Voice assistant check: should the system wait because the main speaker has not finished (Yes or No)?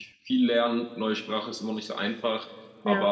Yes